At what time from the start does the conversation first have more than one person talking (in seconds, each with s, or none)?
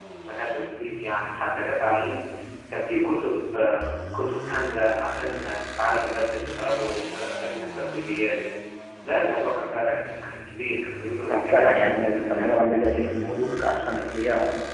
11.2 s